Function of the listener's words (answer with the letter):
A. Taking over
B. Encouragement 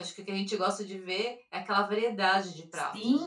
A